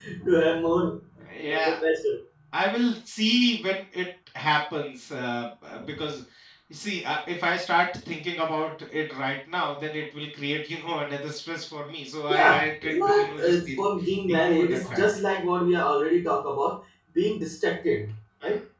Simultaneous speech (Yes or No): Yes